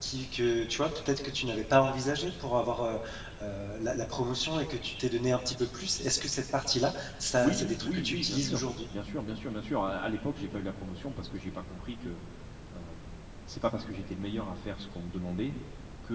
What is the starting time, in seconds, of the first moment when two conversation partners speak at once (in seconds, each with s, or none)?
7.3 s